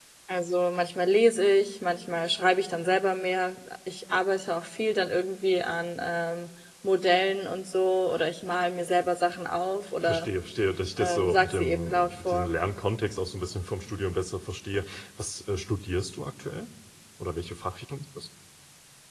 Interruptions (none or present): present